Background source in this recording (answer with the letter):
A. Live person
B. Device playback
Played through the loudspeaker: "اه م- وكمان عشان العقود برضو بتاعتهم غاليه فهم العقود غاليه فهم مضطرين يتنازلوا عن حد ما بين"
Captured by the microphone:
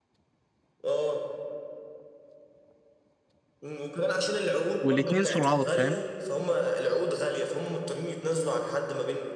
B